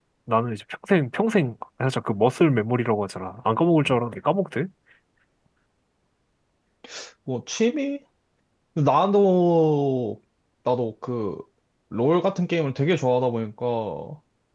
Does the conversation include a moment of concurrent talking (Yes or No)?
No